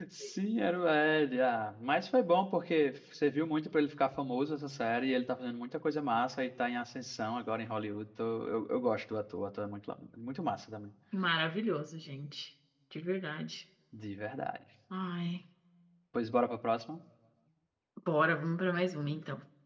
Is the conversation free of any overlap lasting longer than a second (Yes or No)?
Yes